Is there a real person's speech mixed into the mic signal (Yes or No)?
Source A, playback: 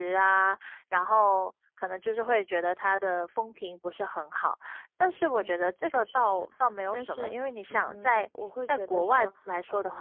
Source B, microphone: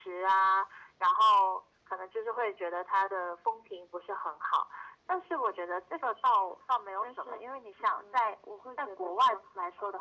No